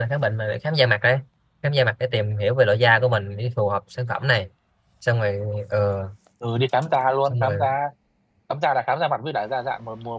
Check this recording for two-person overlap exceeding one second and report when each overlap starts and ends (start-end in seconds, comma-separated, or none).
none